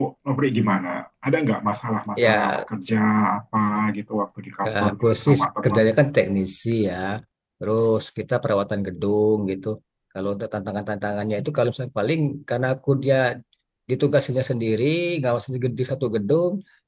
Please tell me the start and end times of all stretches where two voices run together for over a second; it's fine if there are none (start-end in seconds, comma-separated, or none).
4.6-5.9